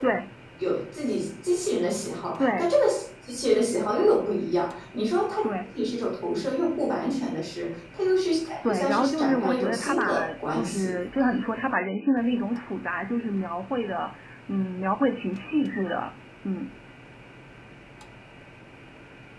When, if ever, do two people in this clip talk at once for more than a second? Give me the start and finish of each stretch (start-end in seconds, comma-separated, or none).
8.7-10.9